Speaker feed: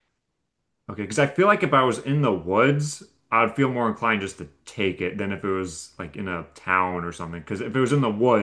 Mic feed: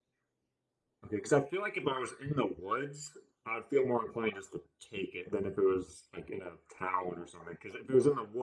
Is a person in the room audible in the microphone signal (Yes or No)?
No